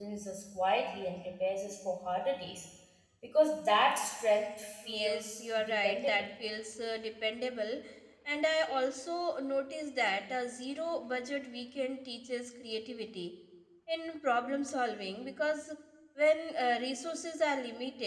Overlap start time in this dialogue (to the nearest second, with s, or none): 5 s